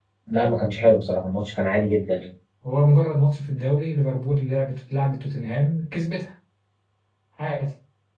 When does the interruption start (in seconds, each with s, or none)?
none